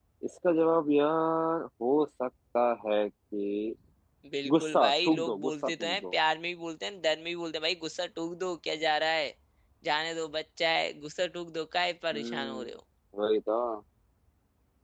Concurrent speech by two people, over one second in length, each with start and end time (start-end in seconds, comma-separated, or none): 4.6-6.0